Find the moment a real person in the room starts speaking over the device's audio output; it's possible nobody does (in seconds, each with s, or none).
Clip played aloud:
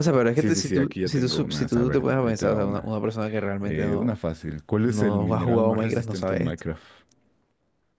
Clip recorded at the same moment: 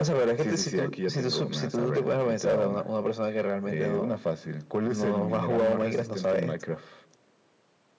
none